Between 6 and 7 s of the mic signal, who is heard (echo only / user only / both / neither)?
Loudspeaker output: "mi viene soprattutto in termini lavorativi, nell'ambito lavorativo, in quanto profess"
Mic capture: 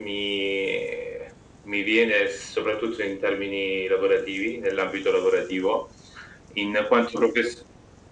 echo only